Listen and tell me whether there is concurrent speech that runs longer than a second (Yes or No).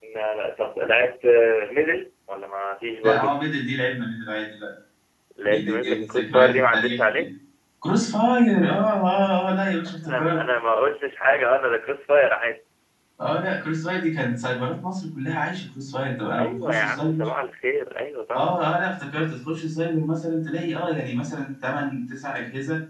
Yes